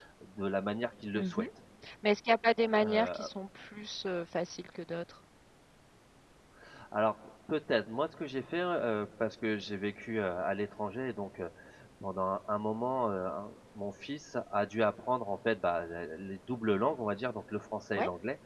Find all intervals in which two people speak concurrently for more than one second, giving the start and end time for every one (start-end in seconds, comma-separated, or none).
none